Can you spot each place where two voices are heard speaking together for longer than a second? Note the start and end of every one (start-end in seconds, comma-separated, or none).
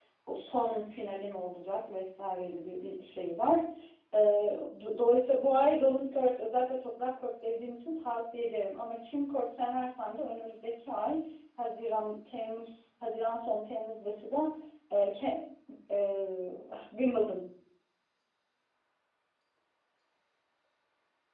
none